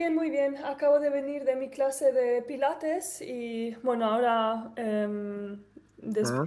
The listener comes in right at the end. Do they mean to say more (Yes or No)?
No